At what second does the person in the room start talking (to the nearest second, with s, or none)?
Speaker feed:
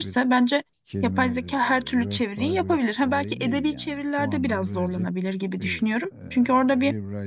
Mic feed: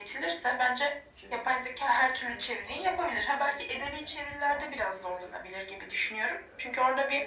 none